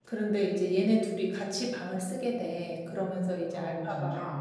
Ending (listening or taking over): listening